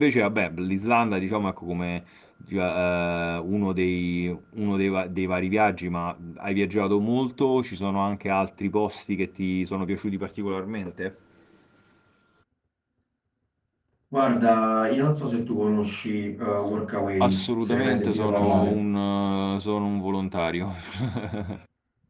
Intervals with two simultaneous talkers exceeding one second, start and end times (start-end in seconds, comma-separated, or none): 17.2-18.8